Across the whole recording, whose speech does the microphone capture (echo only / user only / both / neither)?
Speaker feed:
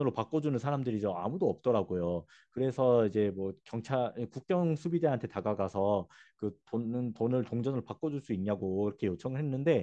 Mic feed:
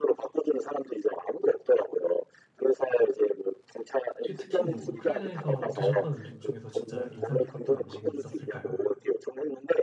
both